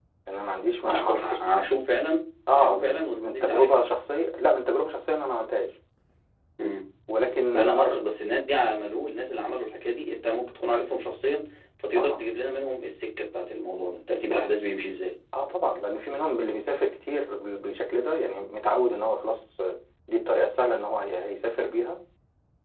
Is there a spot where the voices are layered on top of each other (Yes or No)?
Yes